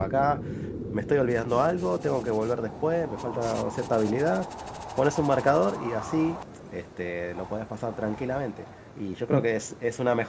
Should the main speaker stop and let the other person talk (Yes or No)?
No